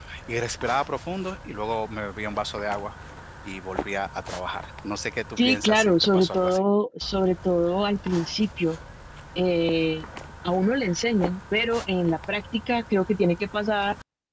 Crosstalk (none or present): present